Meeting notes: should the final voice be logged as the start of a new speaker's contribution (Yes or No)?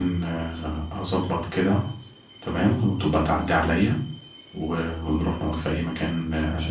Yes